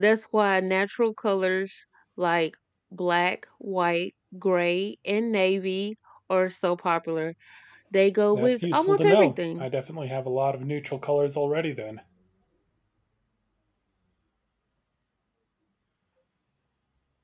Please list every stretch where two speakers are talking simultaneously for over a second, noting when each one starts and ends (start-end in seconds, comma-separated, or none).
8.3-9.7